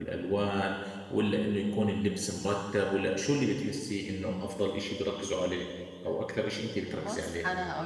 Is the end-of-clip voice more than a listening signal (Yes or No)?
Yes